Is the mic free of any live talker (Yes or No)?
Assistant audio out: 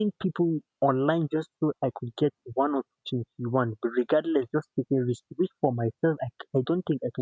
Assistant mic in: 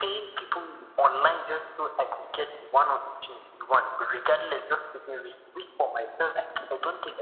Yes